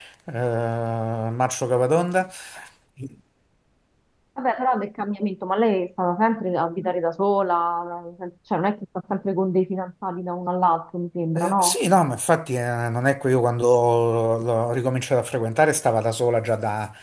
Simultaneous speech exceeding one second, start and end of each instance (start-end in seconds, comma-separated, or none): none